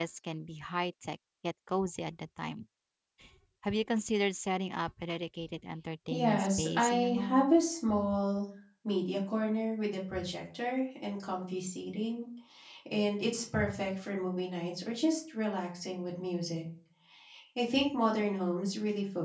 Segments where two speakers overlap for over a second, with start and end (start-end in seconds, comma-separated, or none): 6.1-7.5